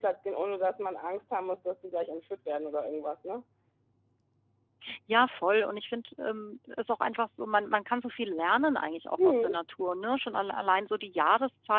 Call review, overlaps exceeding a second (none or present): none